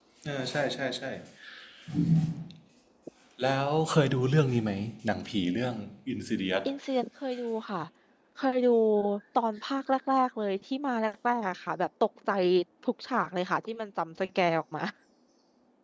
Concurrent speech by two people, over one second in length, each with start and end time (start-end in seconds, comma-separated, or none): none